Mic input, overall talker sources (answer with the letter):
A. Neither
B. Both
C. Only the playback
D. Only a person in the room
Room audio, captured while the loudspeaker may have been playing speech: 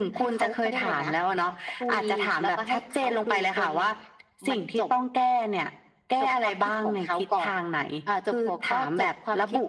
C